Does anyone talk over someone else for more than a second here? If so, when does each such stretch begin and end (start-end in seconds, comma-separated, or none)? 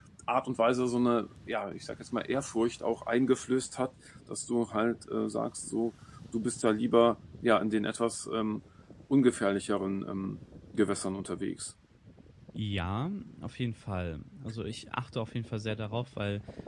none